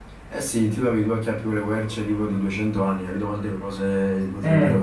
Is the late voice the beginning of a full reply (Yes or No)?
Yes